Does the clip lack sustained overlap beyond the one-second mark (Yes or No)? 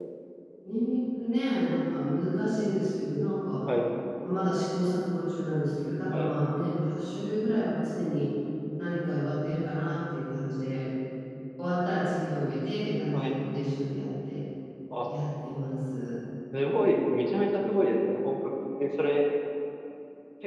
Yes